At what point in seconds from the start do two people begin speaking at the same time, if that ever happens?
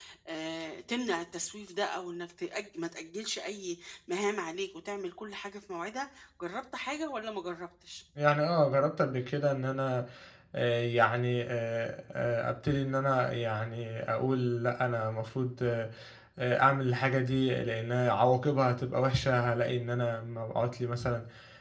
none

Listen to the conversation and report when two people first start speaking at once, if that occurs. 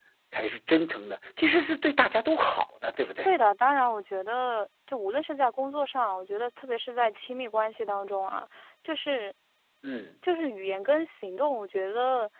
none

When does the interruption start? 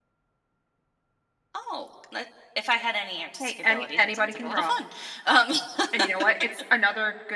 3.4 s

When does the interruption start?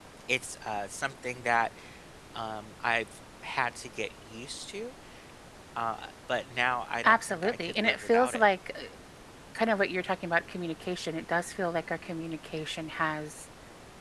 7.0 s

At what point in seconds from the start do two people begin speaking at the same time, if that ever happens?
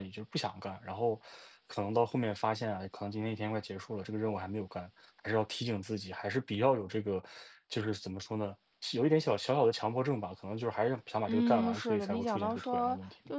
11.3 s

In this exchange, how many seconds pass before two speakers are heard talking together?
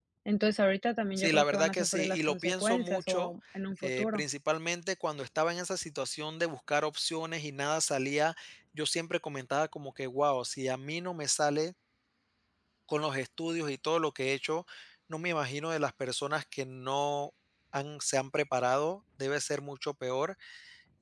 1.2 s

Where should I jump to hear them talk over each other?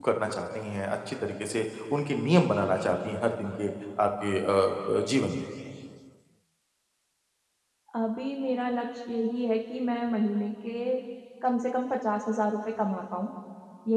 none

